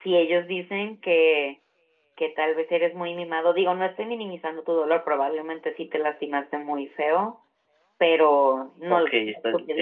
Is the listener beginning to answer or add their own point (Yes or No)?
Yes